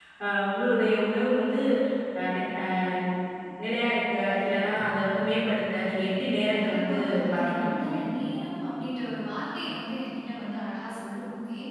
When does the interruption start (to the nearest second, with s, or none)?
6 s